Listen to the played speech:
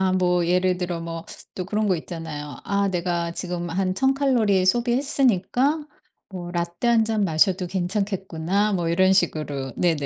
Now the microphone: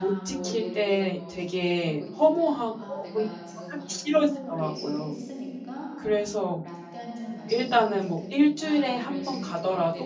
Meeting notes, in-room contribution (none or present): present